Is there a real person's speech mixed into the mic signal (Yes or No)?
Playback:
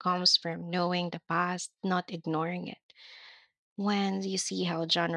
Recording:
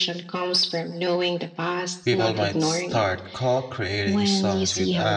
Yes